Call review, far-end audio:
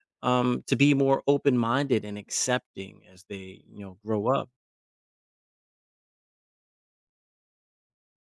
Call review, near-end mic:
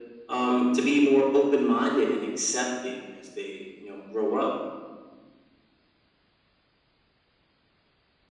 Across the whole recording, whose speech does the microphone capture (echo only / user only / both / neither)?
echo only